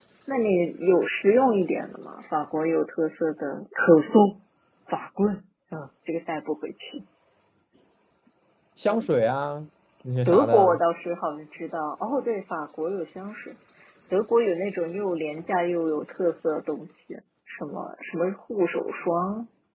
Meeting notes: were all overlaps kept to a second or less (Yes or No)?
Yes